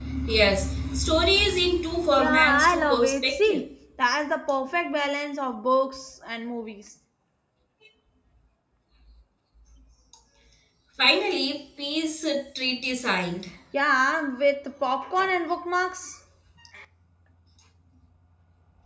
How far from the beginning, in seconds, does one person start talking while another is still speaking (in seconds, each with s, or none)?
2.2 s